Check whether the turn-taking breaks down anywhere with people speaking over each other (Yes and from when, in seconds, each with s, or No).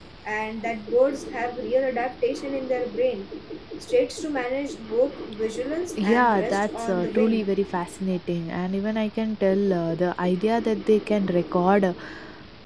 Yes, from 6.0 s